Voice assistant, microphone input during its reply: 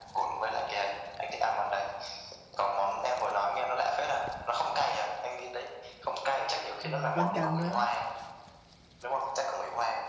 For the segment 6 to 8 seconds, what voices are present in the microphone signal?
both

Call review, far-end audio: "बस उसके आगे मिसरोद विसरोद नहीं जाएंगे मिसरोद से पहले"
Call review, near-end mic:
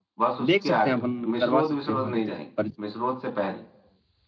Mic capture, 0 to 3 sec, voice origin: both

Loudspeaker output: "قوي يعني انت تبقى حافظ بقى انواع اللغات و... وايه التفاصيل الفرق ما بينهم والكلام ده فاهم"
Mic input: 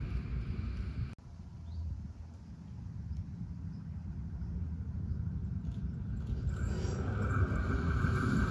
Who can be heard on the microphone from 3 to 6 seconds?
neither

